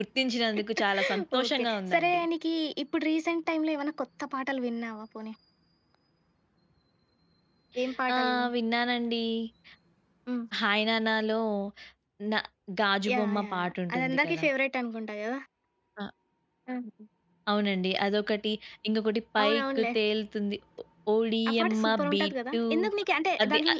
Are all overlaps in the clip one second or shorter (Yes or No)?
No